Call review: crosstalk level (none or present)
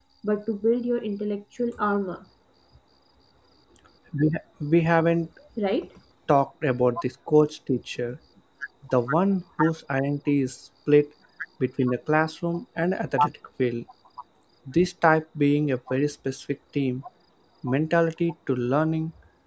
none